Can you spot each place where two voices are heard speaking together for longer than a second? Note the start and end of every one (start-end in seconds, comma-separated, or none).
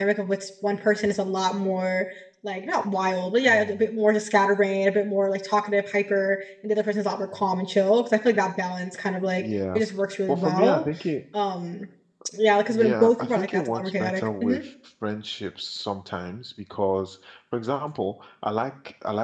12.7-14.6